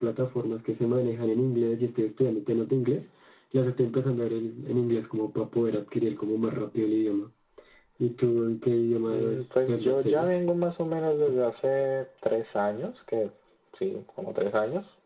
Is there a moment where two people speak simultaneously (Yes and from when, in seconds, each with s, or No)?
Yes, from 9.1 s